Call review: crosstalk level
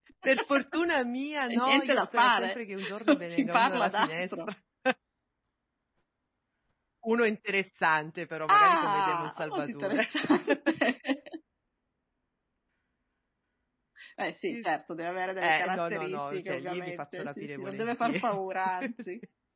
present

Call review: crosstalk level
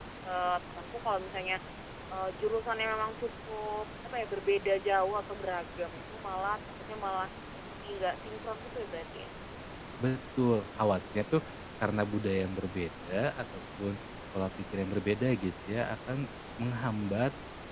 none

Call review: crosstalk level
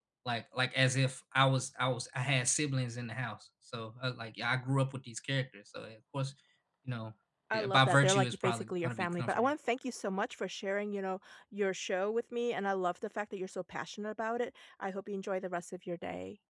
present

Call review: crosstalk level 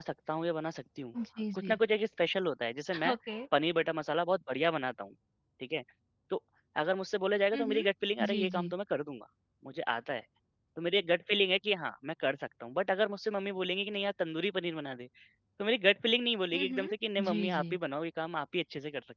present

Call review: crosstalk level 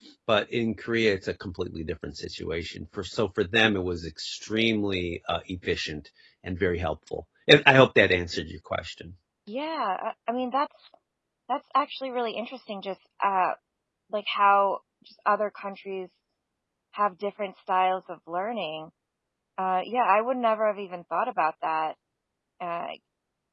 none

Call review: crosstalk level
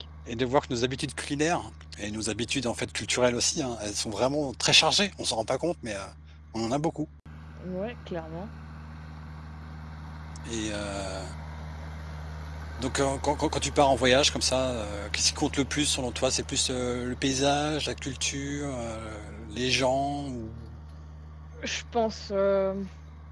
none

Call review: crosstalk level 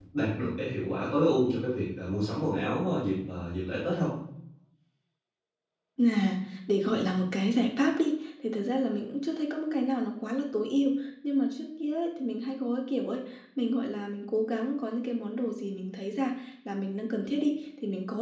none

